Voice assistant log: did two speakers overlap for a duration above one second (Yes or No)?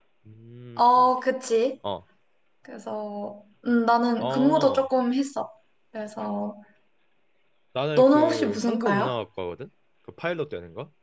Yes